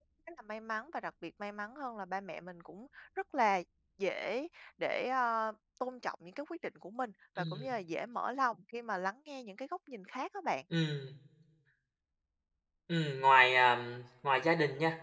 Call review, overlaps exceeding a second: none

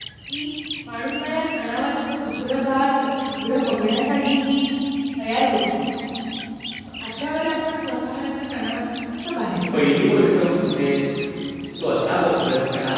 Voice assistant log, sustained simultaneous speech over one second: none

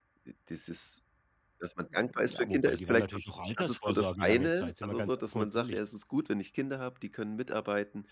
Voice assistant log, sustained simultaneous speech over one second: present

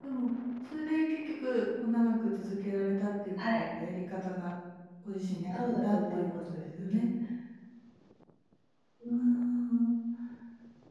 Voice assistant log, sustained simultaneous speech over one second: present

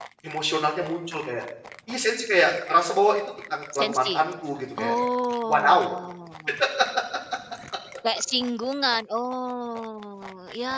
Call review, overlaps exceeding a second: none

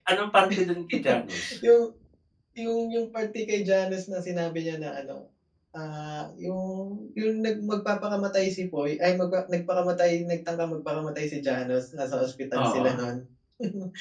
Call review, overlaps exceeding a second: none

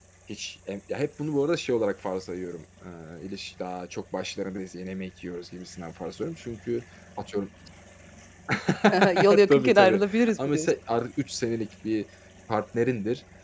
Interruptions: present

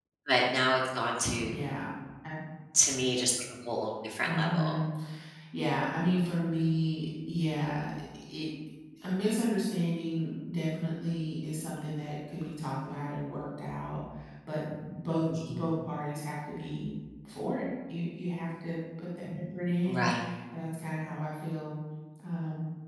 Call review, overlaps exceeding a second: none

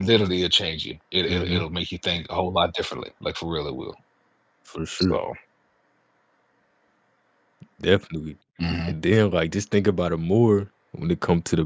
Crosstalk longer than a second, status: none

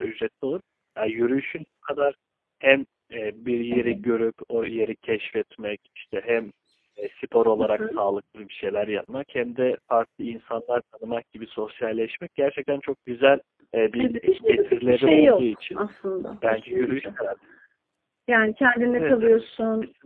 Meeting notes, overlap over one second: present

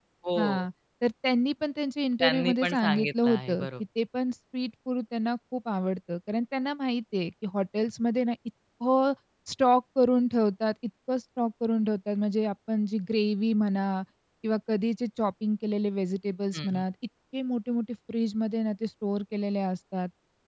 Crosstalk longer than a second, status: present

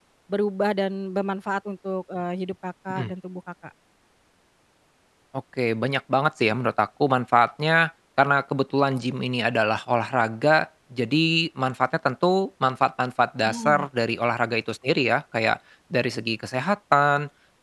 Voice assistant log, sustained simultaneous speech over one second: none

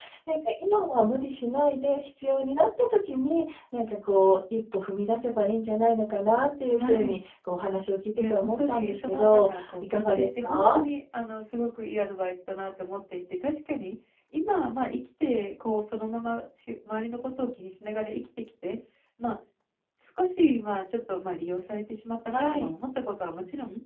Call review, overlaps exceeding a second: present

